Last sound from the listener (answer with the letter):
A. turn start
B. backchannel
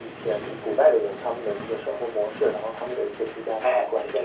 A